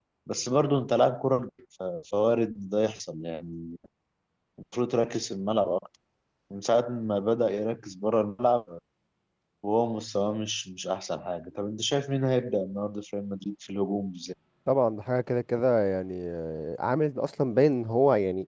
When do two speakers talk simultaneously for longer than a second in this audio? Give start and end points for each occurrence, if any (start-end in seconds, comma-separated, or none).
none